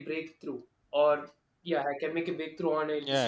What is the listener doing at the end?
taking over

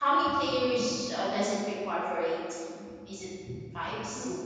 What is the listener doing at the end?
taking over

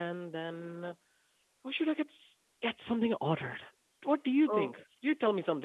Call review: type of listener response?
listening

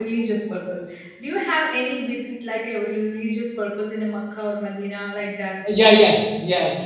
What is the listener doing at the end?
taking over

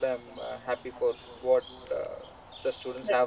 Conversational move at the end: listening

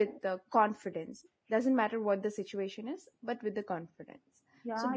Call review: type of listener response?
taking over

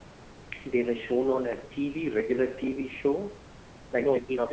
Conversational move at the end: taking over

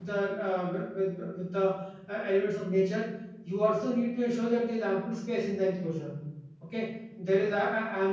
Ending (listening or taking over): listening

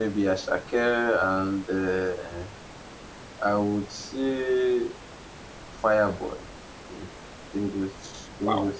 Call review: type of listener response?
taking over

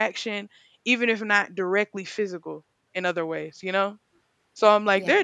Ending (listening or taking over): listening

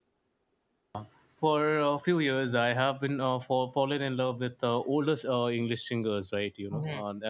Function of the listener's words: taking over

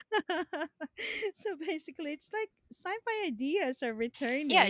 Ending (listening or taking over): taking over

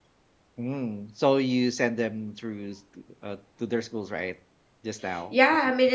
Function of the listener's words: taking over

